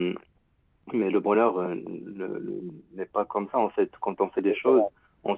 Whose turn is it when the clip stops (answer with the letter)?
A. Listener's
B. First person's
B